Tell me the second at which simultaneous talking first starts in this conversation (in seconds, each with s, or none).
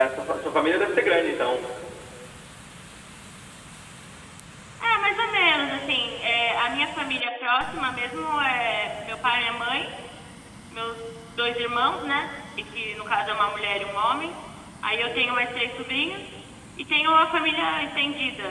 none